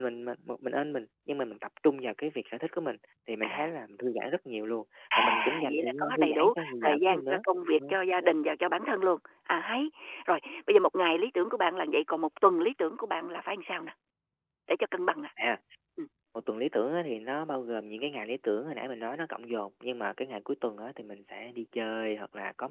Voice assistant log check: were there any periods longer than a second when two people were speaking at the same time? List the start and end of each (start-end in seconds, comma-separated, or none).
5.2-7.4